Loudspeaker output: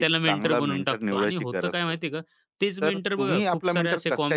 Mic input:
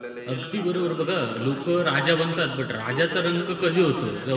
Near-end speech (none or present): present